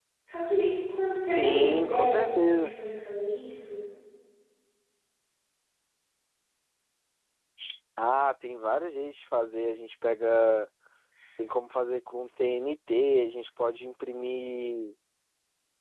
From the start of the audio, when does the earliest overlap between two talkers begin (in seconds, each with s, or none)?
1.2 s